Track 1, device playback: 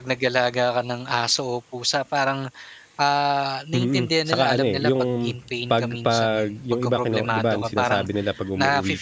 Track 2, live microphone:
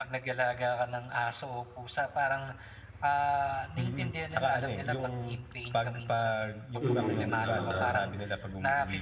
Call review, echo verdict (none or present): present